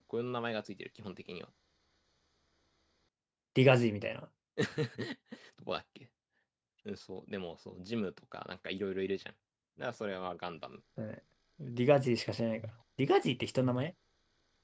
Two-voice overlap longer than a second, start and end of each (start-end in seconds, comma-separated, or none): none